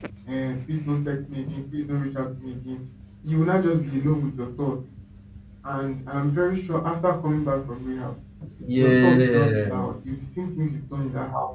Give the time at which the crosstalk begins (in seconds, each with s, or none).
8.8 s